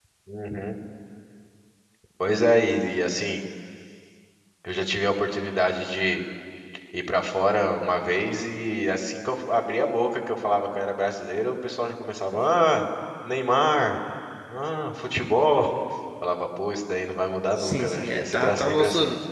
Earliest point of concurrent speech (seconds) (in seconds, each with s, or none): 17.6 s